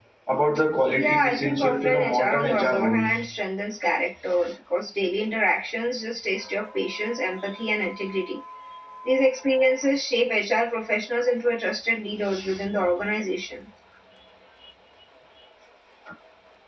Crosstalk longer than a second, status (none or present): present